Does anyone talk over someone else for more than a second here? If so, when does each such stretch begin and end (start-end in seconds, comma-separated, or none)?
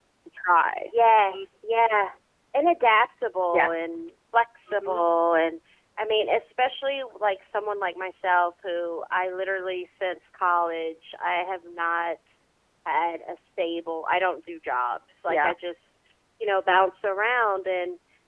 none